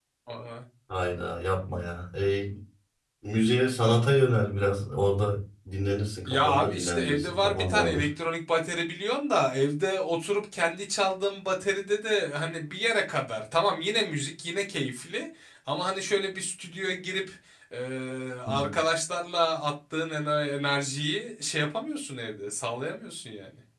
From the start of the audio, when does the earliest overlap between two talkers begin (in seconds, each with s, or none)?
6.3 s